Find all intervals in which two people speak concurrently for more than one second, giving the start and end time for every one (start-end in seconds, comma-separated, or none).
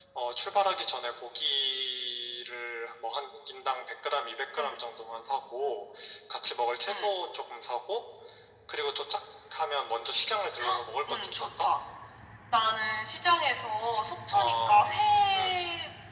none